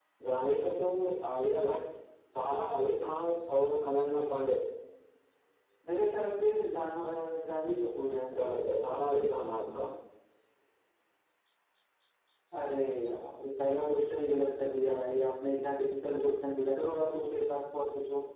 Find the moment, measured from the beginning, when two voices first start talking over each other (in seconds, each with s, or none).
none